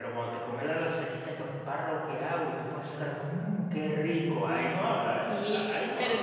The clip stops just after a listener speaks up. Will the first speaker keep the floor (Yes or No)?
No